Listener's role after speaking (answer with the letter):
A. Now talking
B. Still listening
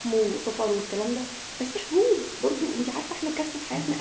B